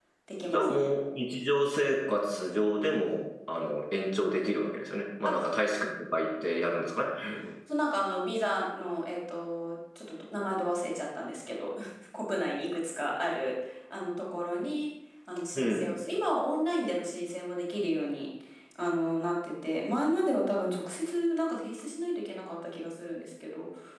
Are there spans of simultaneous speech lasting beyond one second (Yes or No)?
No